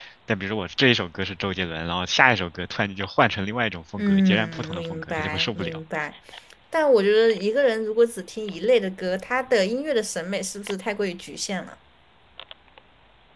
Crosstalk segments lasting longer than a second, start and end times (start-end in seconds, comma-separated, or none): 4.0-5.8